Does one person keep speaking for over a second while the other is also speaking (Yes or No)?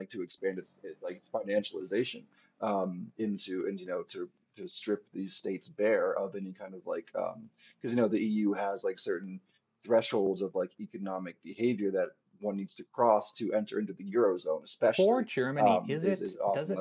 Yes